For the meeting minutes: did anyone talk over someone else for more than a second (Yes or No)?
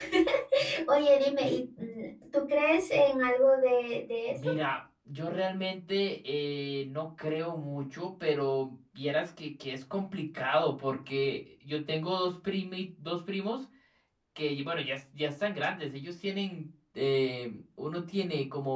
No